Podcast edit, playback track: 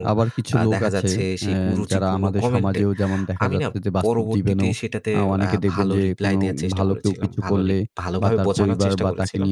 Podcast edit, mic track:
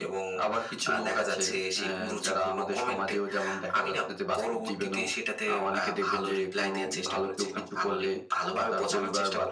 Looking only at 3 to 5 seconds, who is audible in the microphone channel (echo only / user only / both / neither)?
echo only